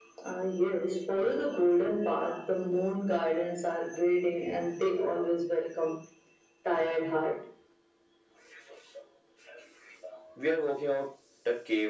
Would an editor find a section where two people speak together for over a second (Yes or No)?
No